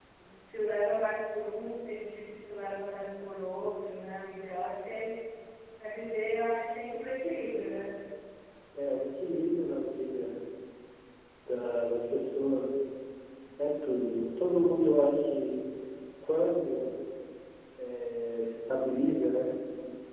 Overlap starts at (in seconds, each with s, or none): none